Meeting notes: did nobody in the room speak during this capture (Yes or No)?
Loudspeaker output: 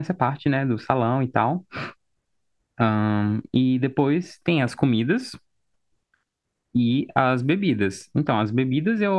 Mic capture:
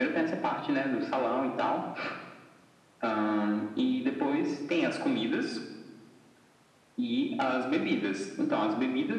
Yes